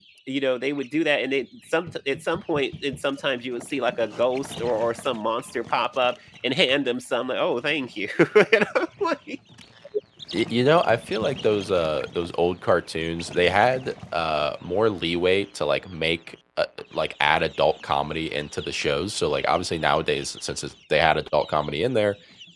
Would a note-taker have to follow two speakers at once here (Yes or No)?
No